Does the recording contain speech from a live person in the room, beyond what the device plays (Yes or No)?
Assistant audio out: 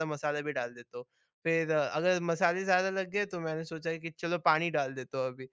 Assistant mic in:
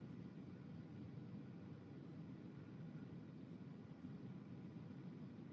No